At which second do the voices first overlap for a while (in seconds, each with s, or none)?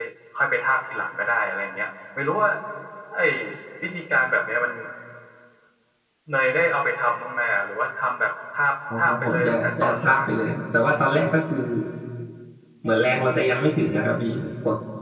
8.9 s